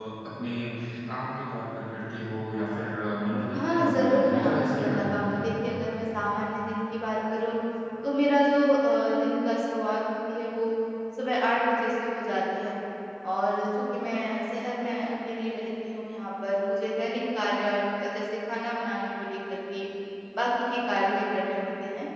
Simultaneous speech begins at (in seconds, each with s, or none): 3.5 s